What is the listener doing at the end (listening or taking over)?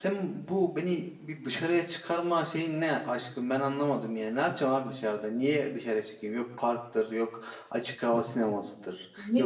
taking over